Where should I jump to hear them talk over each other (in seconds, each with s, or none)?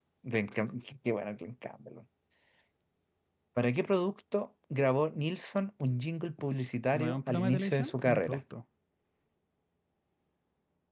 6.9 s